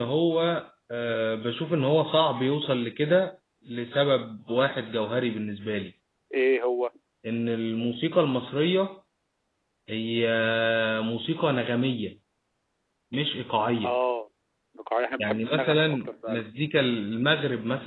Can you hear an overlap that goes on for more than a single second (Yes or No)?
Yes